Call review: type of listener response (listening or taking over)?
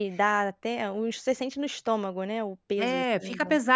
taking over